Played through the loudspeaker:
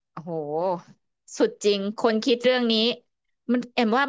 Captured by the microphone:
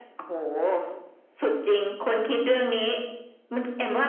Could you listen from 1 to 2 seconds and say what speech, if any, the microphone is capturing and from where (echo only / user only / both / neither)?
echo only